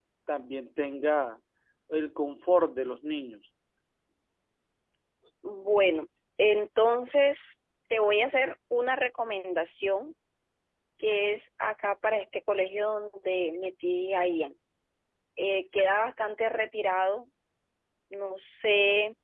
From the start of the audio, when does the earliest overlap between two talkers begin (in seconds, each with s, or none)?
none